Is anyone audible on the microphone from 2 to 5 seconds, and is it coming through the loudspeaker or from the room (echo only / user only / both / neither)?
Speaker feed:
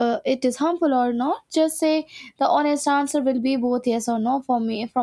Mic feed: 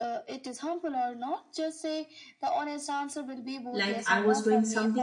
both